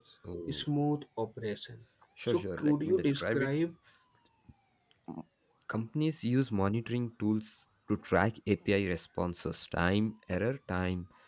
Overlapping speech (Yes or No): Yes